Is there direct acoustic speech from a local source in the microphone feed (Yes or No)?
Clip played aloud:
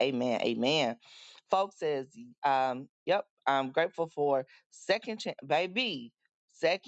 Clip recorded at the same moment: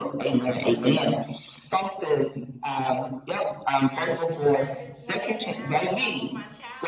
Yes